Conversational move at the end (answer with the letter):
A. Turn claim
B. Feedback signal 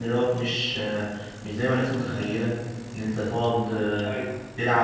B